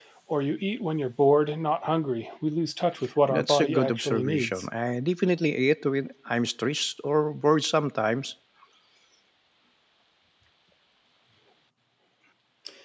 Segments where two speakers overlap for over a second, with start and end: 3.3-4.6

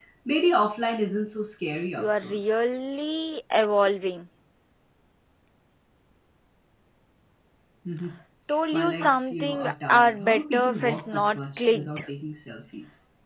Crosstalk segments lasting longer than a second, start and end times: 8.7-12.0

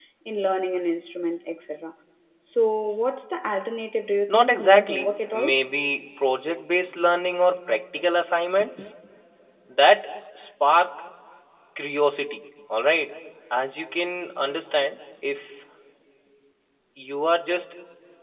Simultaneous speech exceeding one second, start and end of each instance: 4.3-5.6

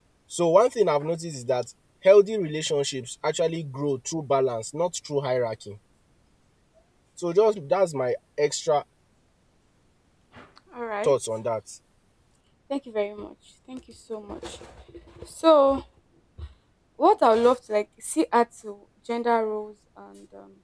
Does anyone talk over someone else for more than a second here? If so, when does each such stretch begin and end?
none

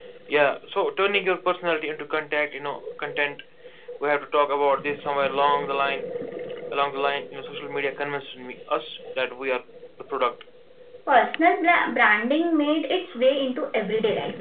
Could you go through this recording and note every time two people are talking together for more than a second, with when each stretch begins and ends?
none

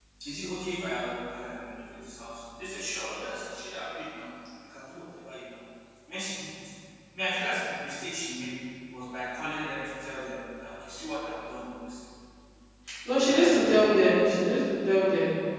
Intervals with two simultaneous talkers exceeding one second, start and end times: 13.1-14.6

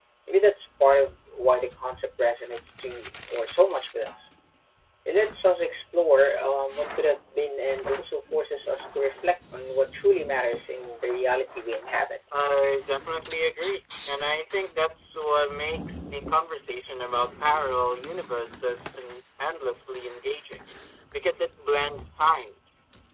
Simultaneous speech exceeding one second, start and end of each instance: none

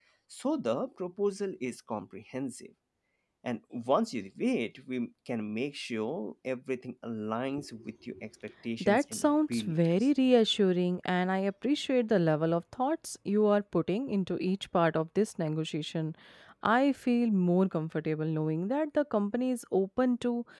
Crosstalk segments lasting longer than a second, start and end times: 8.8-10.1

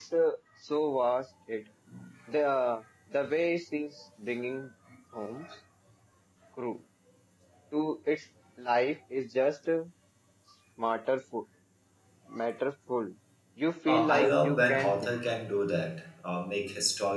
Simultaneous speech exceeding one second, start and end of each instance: 13.9-15.2

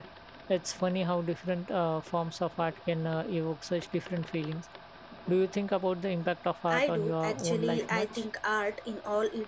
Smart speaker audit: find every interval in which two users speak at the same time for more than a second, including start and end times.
6.7-8.2

